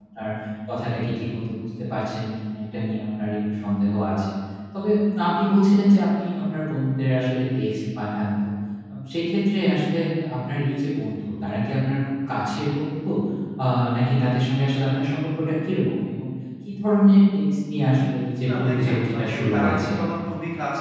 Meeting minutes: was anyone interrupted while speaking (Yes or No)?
Yes